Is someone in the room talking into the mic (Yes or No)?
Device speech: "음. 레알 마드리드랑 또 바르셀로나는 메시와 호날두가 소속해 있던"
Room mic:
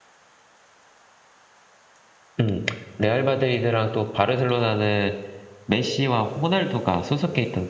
No